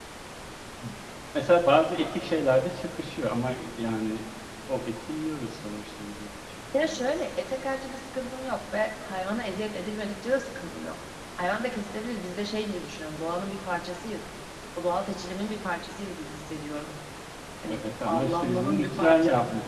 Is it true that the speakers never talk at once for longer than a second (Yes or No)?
No